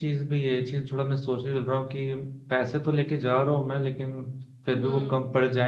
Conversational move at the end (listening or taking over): listening